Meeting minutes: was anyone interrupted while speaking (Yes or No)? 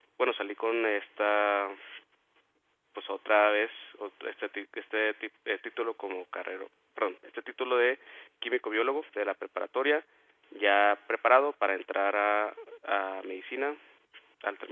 No